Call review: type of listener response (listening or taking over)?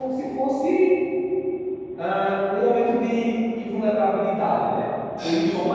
listening